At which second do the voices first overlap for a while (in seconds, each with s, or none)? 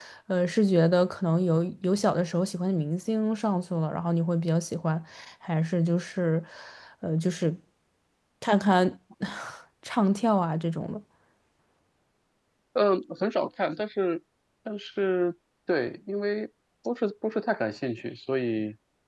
none